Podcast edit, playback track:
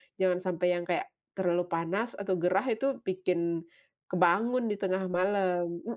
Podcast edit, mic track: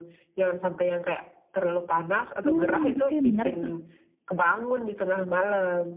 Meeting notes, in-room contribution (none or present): present